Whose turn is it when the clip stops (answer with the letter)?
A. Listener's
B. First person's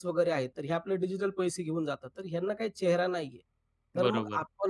B